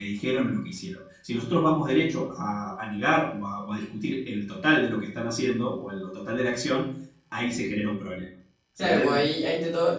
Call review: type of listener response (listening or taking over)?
taking over